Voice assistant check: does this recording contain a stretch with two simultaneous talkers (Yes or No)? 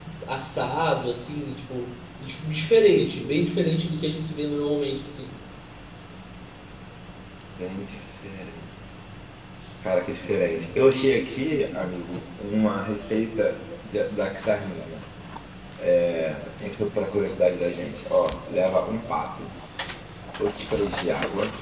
No